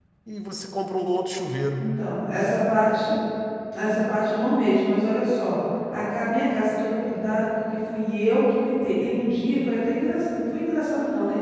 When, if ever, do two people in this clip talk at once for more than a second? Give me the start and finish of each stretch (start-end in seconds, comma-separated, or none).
none